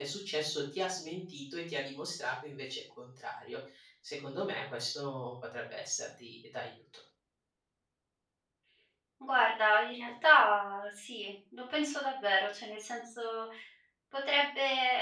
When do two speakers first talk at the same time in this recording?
none

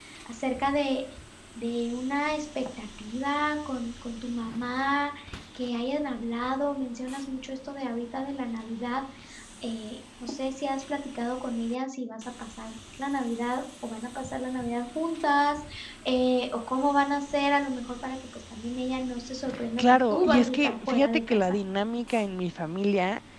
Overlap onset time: 20 s

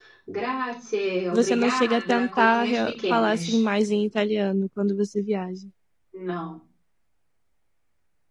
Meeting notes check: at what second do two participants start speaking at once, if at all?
1 s

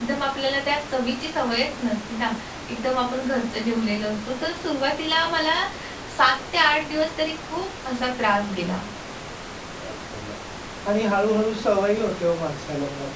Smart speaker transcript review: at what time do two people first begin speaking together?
none

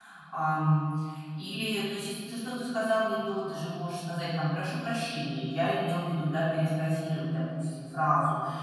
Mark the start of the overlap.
none

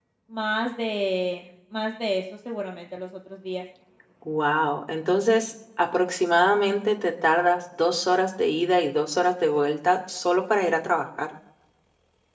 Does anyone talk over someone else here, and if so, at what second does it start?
none

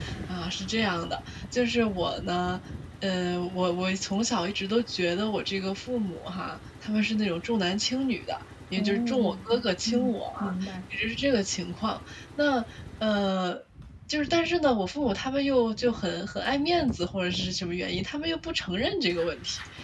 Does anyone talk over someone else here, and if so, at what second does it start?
9 s

